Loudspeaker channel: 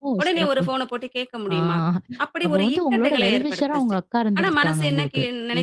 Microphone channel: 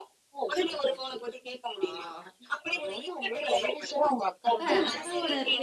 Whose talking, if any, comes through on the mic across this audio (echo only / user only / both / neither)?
both